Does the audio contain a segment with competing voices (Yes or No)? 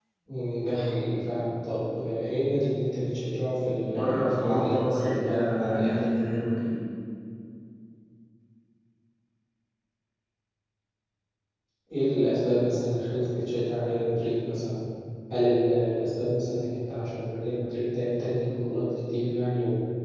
Yes